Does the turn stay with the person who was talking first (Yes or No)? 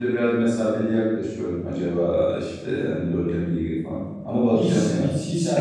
No